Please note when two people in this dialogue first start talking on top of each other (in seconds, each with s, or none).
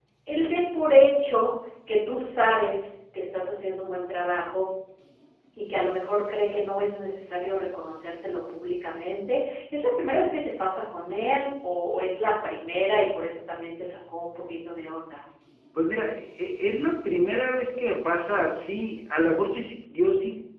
none